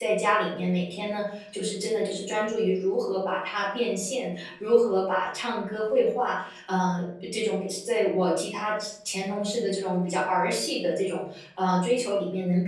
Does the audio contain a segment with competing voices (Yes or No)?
No